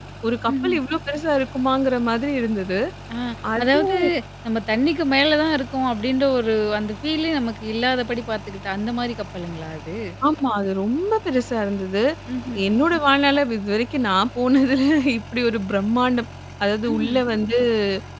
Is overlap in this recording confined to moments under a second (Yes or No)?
Yes